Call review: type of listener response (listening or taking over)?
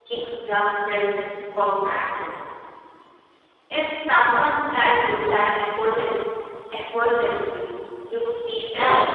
taking over